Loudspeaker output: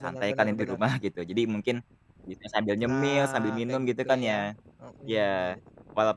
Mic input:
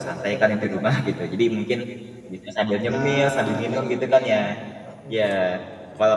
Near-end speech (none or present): present